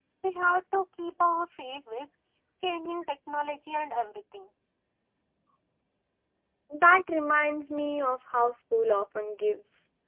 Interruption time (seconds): none

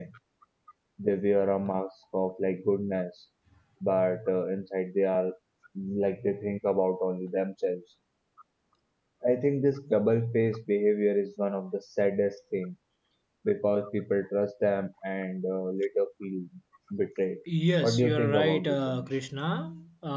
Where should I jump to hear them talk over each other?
17.8 s

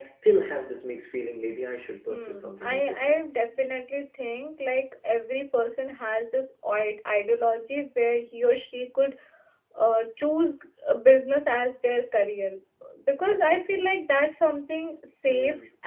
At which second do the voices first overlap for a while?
2.1 s

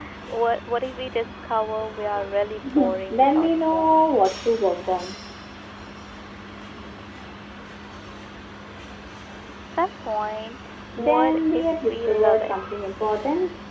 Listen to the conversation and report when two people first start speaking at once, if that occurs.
2.7 s

